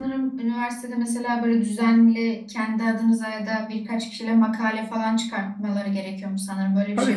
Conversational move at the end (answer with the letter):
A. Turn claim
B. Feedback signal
A